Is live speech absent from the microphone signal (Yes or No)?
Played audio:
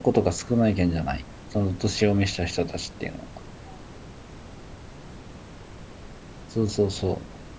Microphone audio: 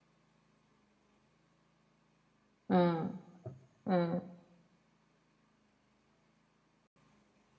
No